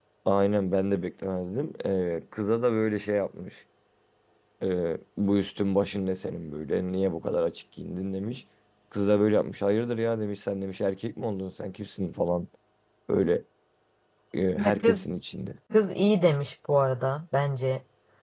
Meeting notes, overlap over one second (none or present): none